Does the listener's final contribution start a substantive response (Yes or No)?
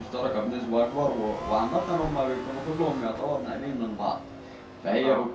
No